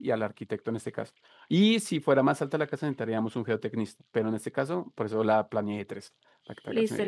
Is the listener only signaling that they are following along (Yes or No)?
No